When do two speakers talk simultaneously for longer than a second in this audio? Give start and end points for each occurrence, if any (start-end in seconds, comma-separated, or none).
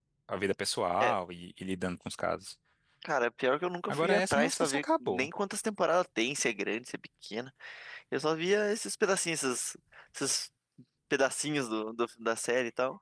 3.9-5.3